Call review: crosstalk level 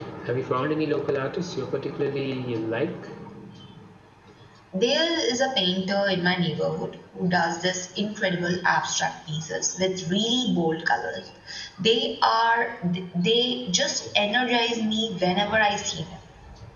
none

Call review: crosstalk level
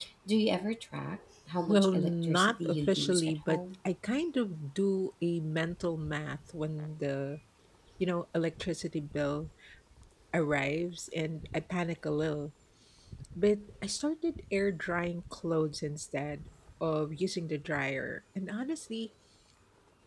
present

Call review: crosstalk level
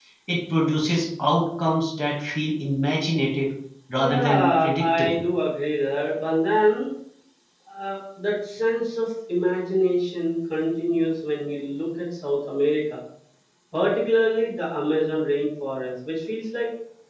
present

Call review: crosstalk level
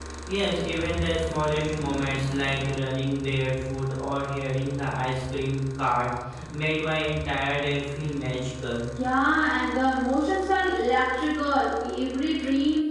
none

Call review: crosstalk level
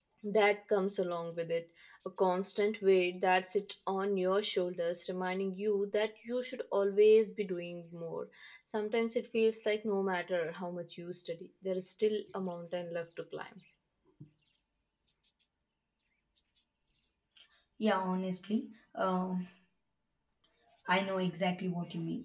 none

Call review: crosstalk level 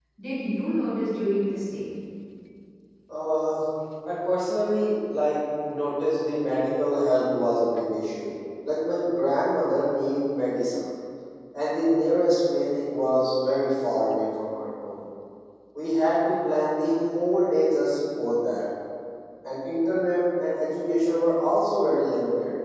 none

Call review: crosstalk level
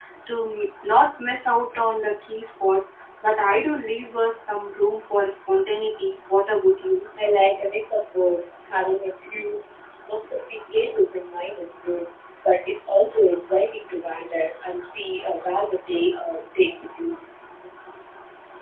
none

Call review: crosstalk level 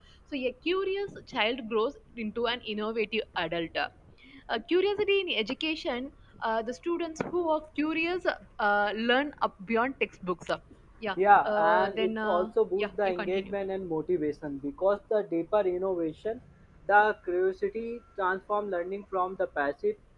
present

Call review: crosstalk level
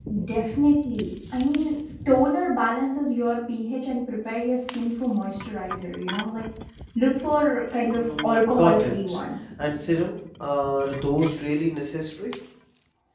present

